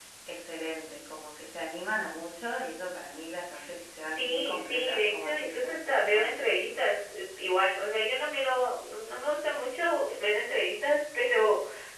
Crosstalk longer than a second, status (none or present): present